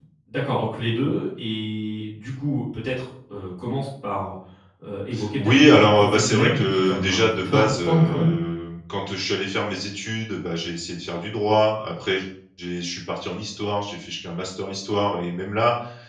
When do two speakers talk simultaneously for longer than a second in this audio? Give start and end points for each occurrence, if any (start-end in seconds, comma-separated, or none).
5.4-8.3